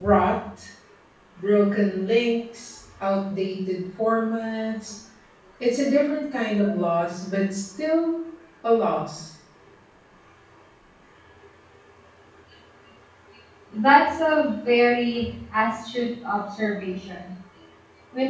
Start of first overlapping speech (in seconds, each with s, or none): none